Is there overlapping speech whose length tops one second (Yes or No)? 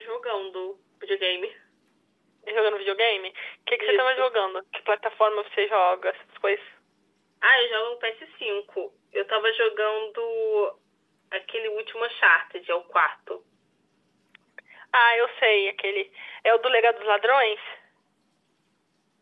No